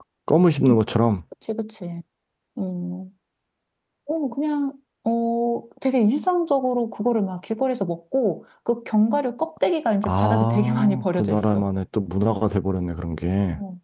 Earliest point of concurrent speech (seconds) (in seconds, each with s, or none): 10.0 s